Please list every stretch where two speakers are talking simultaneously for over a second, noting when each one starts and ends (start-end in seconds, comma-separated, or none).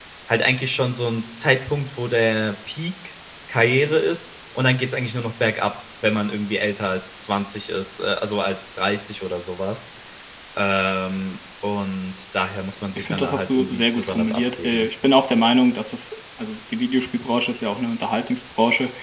12.9-14.9